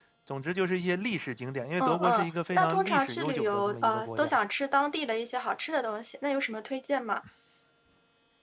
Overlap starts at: 1.8 s

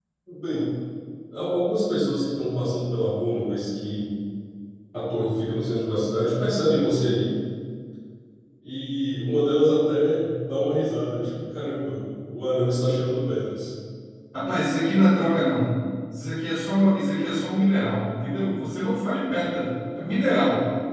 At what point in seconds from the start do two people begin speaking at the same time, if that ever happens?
none

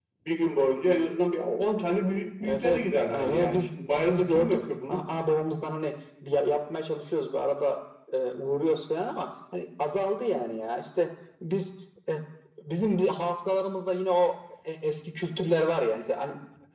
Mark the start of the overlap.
2.4 s

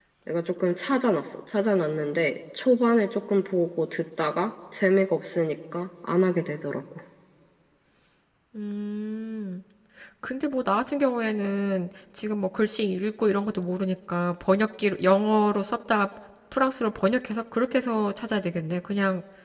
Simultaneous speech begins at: none

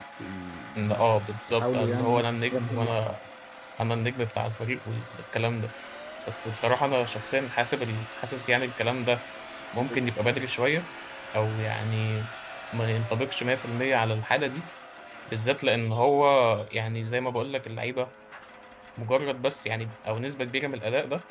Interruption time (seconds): 1.5 s

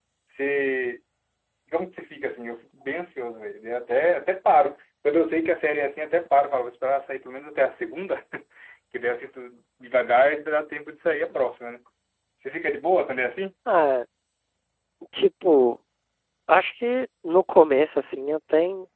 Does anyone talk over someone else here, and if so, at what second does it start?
none

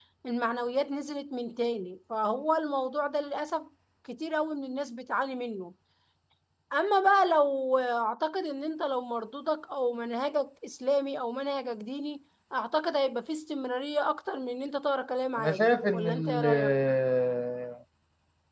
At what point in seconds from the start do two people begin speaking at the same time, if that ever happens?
15.4 s

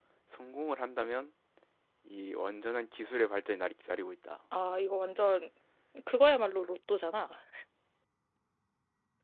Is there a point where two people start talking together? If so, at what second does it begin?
none

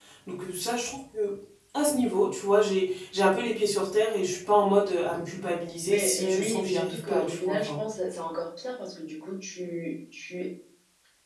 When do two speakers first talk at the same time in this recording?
5.9 s

